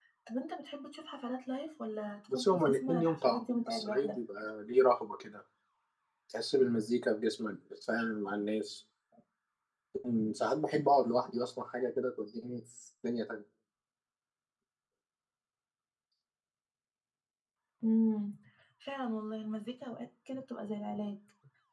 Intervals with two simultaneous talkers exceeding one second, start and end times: 2.3-4.1

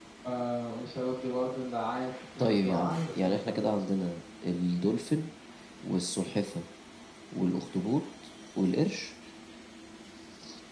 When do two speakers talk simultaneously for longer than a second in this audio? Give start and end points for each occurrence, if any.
2.4-3.6

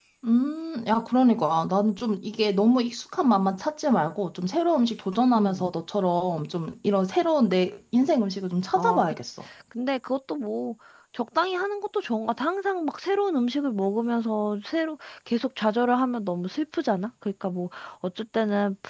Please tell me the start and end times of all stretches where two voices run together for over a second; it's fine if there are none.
none

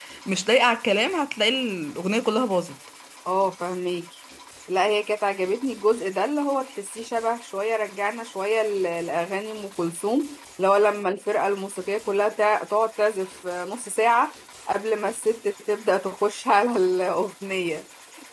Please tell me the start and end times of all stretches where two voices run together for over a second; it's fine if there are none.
none

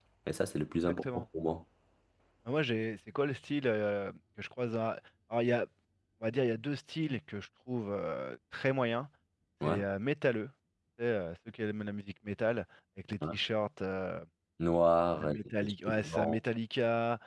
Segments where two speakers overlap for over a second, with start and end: 15.2-16.4

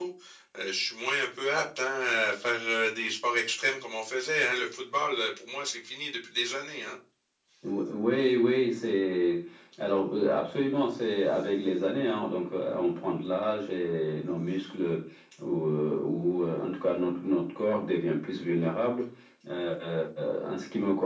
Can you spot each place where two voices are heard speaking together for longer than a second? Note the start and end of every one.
none

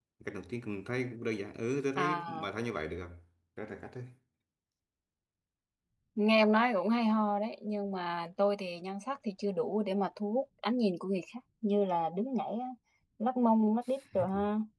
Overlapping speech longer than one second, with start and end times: none

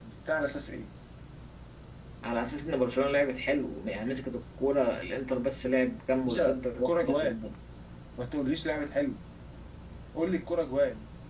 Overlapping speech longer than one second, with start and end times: 6.2-7.4

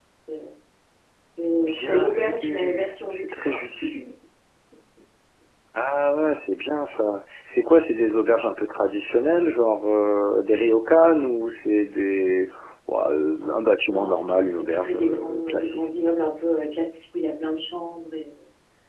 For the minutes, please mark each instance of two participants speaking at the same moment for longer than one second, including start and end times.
1.8-3.6, 13.9-15.8

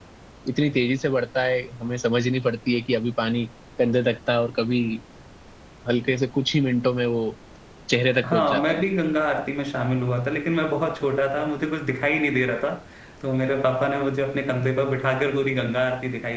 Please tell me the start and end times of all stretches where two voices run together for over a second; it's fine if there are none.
none

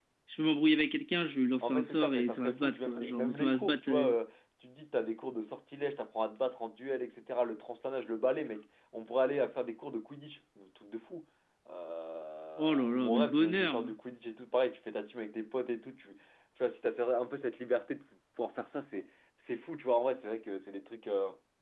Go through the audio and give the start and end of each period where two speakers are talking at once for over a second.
1.6-4.1, 12.6-14.0

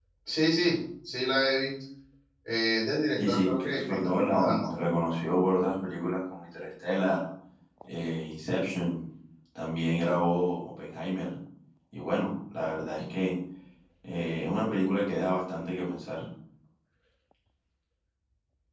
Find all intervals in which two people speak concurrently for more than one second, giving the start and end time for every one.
3.2-4.7

